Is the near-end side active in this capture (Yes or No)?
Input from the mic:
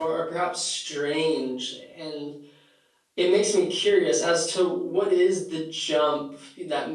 Yes